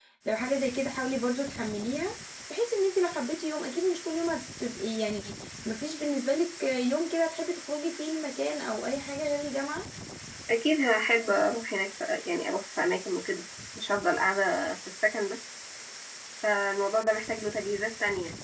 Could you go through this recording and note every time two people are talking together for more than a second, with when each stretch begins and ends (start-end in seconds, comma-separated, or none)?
none